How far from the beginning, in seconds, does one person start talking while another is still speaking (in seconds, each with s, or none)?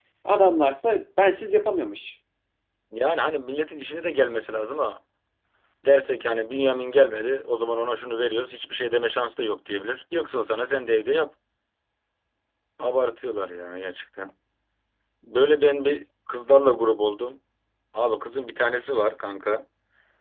none